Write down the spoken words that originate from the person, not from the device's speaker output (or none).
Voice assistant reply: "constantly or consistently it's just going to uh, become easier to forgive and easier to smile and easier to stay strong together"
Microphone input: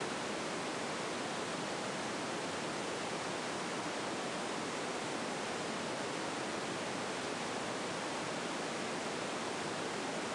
none